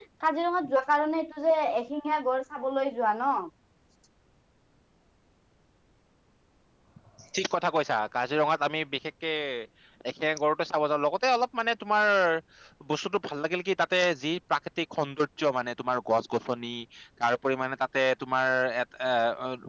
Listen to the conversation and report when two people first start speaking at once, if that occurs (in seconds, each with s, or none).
none